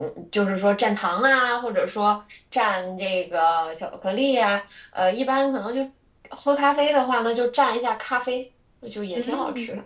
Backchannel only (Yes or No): No